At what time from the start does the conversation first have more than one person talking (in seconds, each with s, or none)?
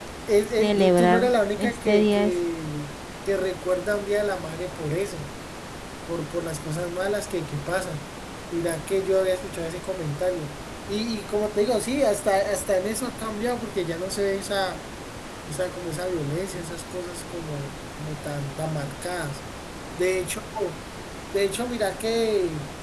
0.6 s